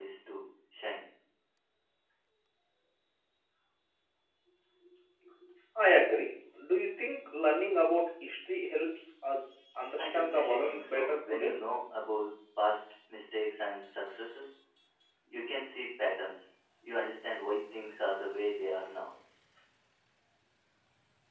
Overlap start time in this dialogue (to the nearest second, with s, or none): 10 s